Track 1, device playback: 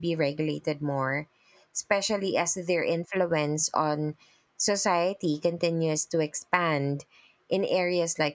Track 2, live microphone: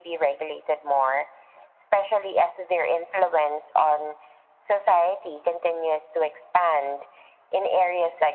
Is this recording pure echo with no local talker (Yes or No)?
Yes